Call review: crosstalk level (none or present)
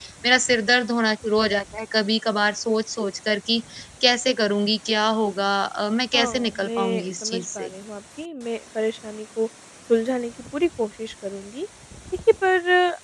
present